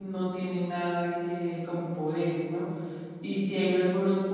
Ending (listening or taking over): listening